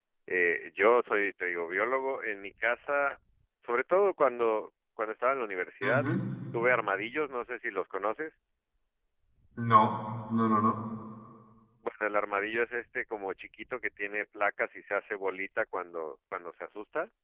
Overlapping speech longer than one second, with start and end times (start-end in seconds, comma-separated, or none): none